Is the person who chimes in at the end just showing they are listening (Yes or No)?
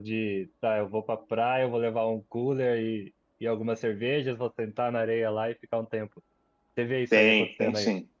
No